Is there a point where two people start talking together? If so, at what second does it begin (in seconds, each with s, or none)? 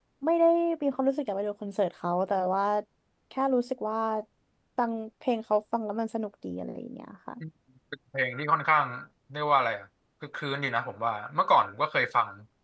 none